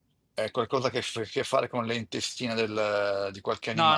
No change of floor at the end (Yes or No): No